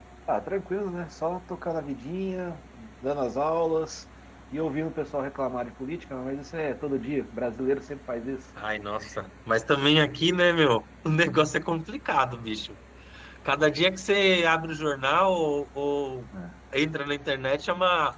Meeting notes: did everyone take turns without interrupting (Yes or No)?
Yes